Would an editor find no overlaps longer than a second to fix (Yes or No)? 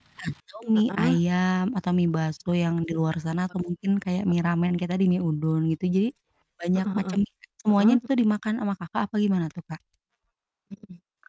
Yes